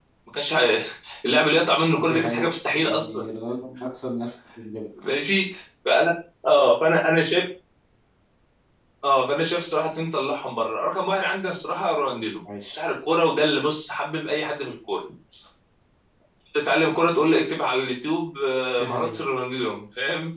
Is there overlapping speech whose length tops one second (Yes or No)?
Yes